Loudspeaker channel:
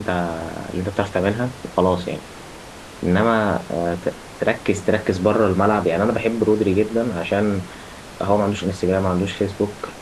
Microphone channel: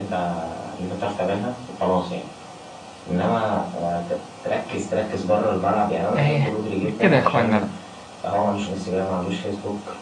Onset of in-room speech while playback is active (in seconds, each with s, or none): 6.1 s